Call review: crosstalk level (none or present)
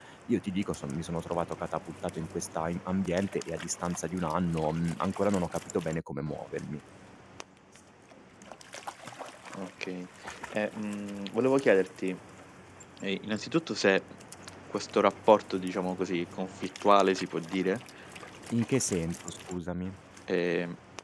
none